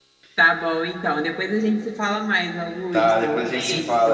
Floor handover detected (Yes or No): Yes